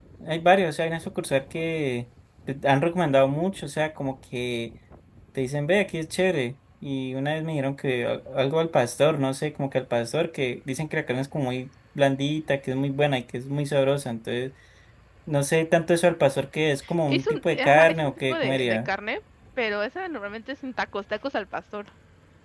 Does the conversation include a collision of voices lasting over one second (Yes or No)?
Yes